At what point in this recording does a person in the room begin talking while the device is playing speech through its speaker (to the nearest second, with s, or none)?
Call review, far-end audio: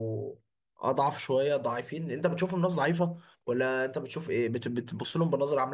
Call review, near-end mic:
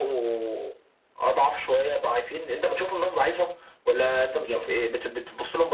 4 s